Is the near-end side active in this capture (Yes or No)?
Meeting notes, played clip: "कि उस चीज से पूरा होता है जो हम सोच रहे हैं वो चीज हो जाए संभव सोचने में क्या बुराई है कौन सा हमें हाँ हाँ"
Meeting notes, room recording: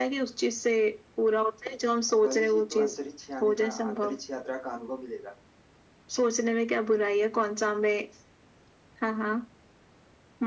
Yes